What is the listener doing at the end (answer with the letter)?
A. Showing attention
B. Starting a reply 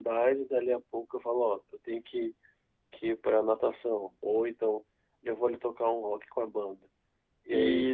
A